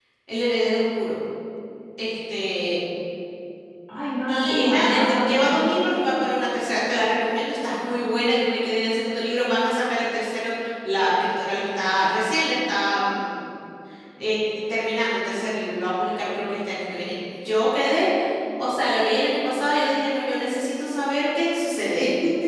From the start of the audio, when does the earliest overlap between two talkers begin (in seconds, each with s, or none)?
4.3 s